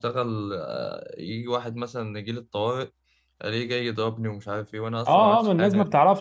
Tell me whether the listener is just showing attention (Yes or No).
No